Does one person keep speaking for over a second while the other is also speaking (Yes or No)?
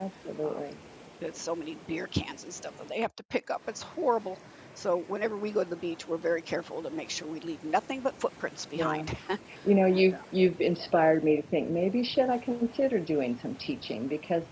No